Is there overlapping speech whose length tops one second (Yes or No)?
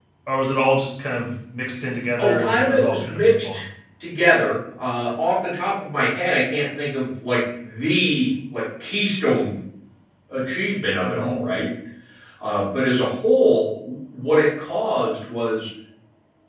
Yes